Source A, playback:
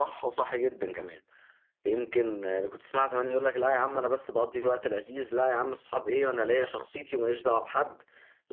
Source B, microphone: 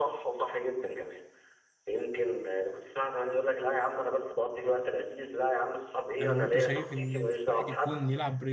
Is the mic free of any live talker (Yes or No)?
No